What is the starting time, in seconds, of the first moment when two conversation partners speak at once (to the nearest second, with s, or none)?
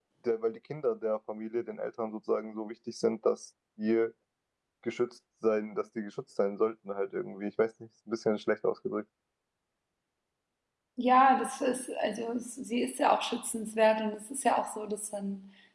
none